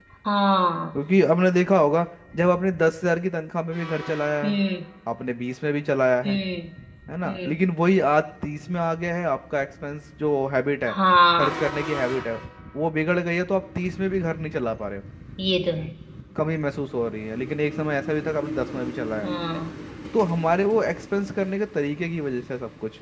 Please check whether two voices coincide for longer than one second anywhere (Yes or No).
No